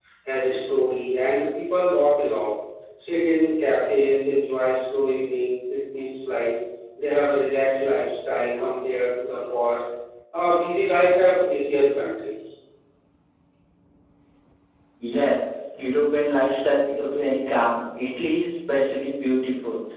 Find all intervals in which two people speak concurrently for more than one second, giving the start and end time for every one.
none

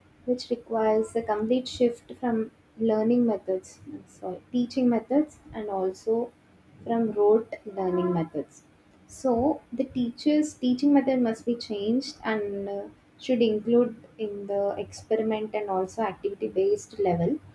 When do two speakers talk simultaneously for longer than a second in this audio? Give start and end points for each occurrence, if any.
none

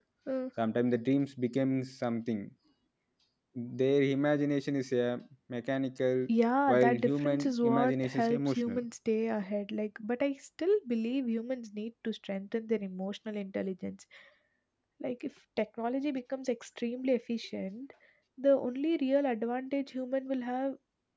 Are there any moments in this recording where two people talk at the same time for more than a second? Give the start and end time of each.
6.7-8.8

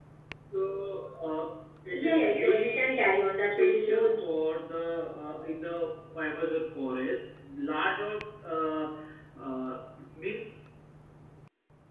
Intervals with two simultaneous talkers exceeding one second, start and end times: 1.9-4.6

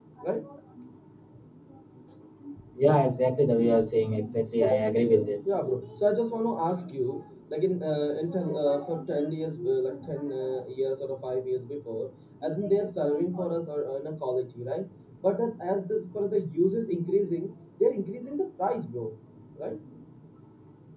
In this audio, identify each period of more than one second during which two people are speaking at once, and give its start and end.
none

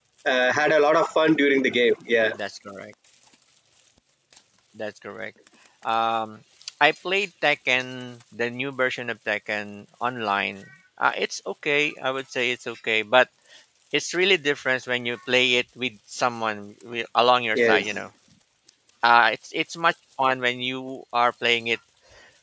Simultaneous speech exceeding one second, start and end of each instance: none

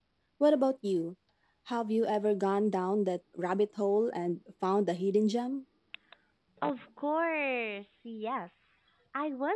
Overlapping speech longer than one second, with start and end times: none

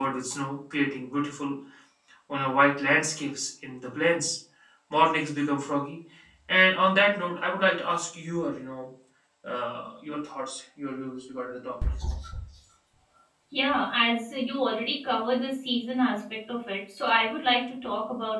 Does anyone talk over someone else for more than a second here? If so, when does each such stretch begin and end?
none

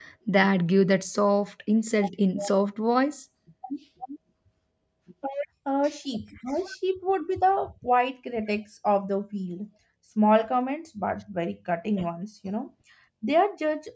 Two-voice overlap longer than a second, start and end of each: none

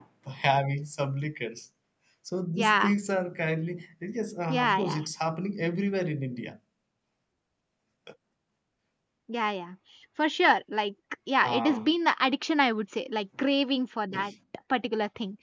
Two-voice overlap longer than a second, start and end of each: none

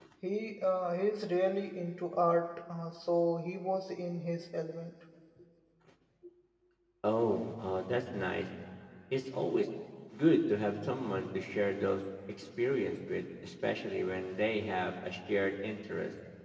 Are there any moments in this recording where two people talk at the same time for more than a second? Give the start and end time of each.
none

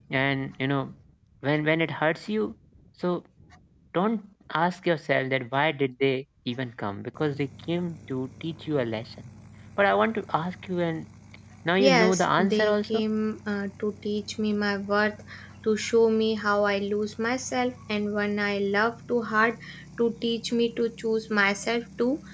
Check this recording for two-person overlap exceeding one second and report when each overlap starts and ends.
11.8-13.0

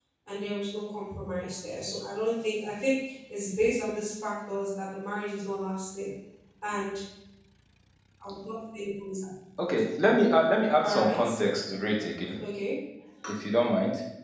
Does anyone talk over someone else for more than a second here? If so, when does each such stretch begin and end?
none

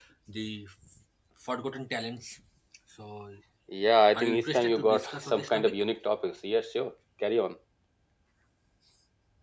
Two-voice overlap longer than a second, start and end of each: 4.1-5.8

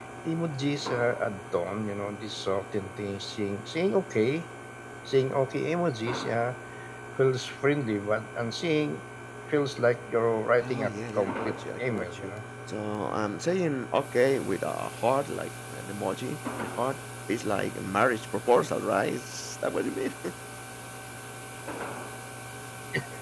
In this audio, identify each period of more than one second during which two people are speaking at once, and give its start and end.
10.6-12.3

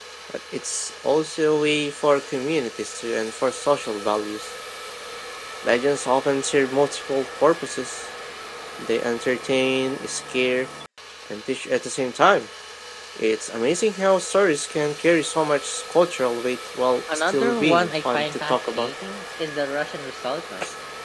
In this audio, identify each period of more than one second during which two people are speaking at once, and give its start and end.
17.1-18.9

